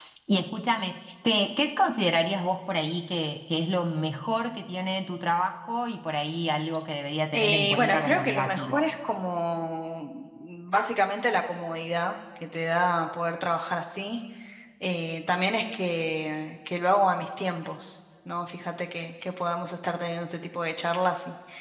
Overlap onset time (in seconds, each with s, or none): 7.3 s